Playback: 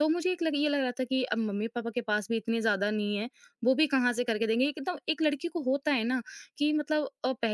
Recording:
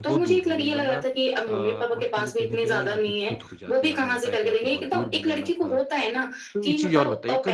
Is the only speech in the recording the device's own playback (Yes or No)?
No